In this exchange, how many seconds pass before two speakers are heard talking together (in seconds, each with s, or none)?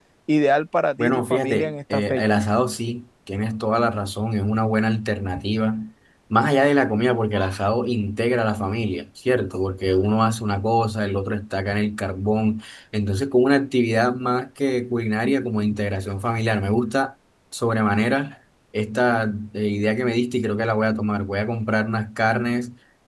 1.0 s